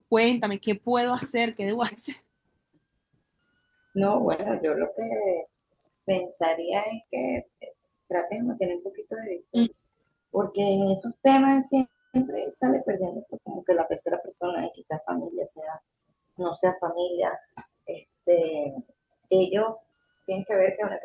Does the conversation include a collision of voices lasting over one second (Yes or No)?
No